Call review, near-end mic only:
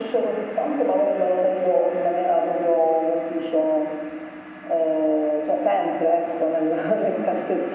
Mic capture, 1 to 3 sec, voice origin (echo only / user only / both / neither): echo only